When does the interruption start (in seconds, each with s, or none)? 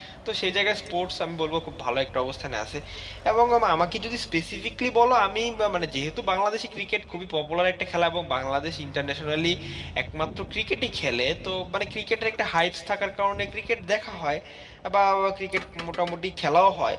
none